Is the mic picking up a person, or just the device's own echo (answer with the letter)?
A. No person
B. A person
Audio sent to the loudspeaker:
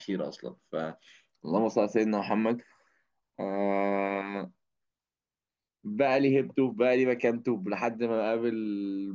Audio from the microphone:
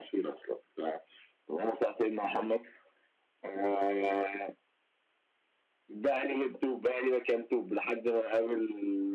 A